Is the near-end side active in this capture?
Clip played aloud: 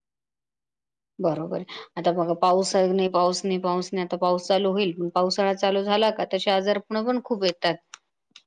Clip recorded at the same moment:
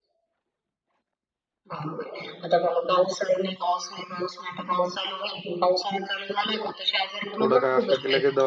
Yes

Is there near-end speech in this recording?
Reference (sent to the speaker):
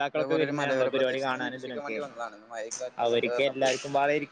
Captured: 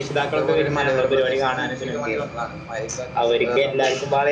No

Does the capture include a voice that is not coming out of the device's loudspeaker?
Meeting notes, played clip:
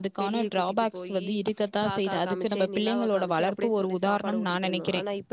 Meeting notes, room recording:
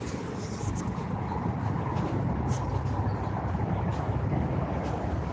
No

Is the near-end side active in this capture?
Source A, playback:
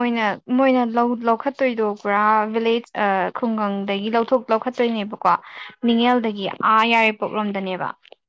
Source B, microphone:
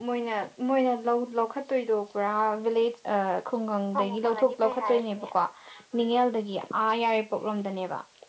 Yes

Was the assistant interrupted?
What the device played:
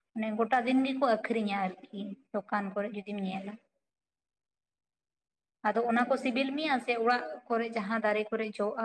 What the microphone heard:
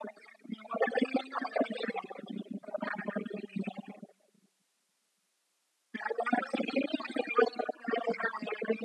No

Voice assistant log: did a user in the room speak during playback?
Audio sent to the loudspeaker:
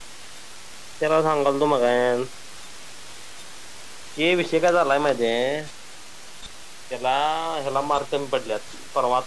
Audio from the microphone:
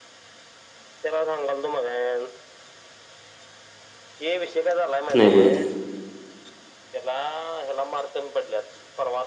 Yes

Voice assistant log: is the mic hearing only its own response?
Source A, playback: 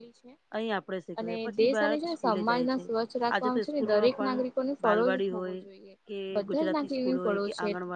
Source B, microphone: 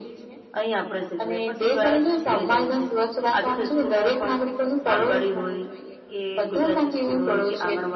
Yes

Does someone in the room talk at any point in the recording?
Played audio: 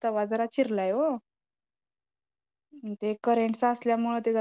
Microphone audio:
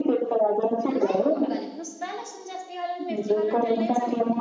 Yes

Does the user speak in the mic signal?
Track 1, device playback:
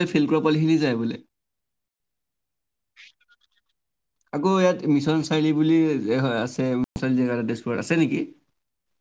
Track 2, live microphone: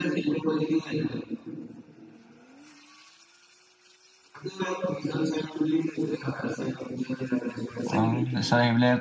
Yes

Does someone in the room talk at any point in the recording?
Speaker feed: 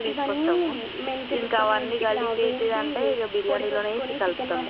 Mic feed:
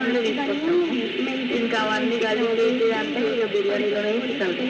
No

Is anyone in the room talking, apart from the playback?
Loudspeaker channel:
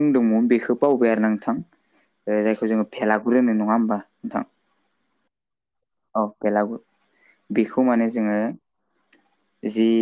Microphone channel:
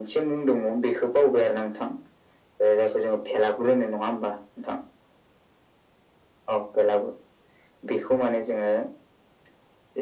No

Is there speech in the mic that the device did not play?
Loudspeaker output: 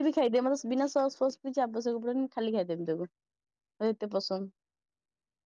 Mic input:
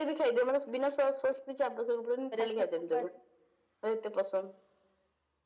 Yes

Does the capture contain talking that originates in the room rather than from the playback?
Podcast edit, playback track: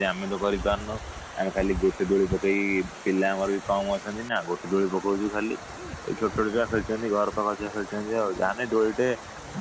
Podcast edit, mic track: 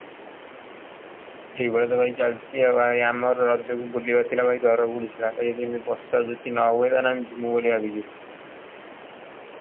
Yes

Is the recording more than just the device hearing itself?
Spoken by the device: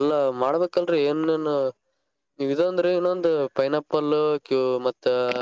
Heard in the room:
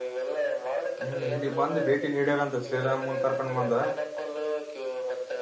Yes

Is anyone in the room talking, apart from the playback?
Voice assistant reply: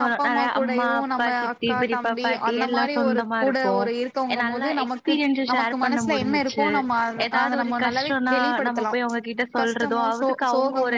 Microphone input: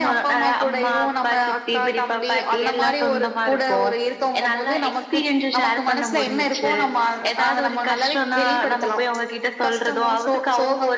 No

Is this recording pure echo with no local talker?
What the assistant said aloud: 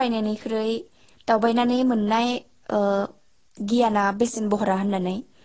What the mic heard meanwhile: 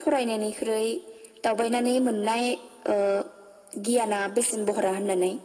Yes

